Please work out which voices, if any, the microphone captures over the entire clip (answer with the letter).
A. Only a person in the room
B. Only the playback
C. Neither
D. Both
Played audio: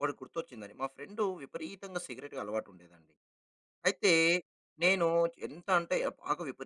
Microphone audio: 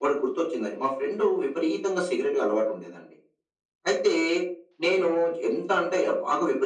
B